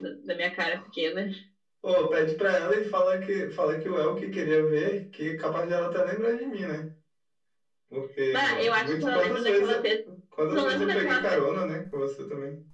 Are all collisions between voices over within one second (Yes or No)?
No